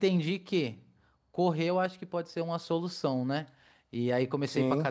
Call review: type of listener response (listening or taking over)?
listening